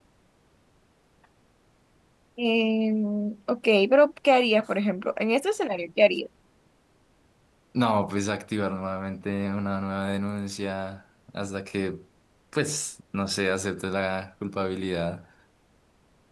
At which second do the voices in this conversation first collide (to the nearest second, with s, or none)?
none